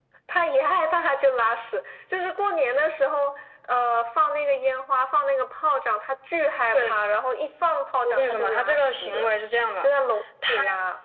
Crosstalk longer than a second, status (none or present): present